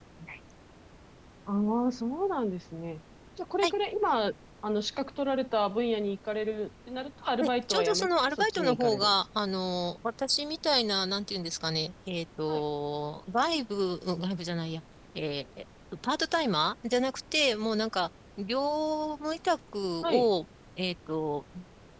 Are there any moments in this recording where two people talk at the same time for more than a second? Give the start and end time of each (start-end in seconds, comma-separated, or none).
7.4-9.1